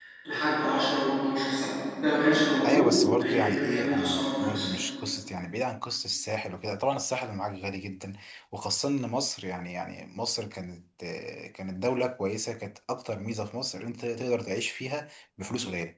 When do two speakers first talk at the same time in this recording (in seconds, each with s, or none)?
2.6 s